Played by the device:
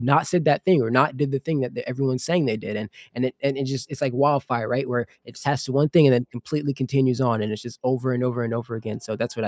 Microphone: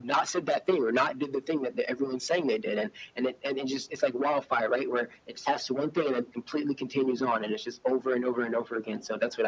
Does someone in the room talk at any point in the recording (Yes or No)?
No